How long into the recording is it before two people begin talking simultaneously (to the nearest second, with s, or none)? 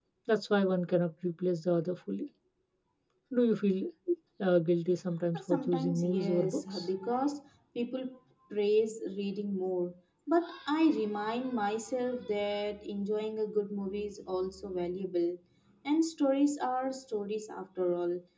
5 s